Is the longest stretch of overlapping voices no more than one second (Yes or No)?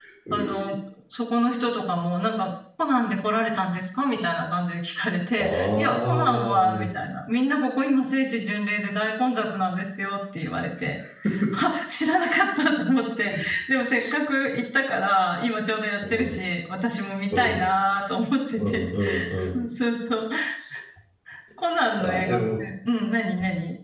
No